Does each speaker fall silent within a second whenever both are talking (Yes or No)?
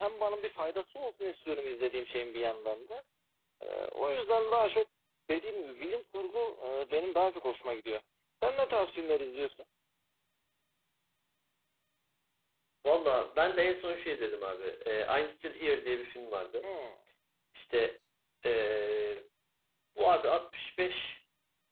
Yes